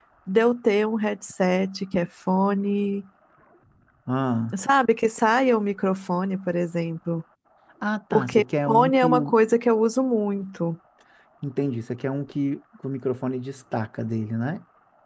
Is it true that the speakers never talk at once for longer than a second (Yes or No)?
No